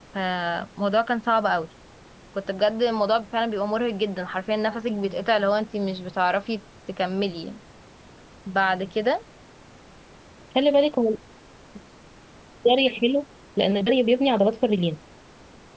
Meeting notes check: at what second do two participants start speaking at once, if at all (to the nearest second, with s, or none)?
none